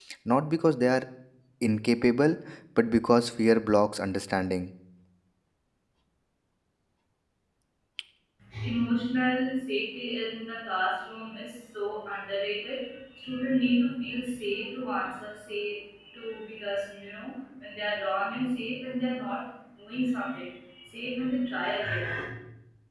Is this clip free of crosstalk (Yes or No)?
Yes